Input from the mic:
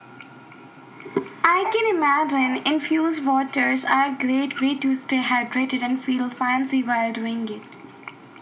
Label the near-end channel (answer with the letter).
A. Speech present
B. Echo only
B